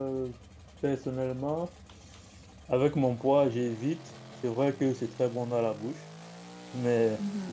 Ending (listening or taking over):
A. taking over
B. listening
B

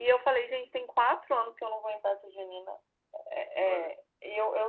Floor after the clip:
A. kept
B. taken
A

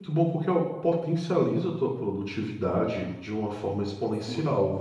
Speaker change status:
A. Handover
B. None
B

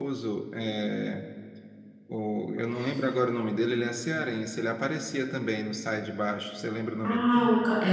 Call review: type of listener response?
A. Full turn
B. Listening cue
A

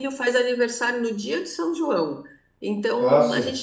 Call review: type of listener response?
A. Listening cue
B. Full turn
A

